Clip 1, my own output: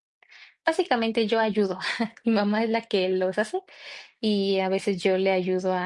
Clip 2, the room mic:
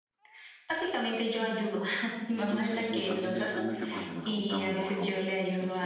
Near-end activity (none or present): present